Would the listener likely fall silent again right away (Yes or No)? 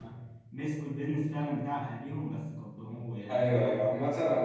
No